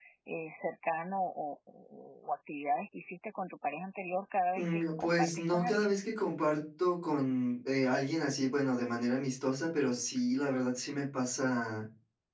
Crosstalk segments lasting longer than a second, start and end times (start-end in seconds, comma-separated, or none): 4.5-6.0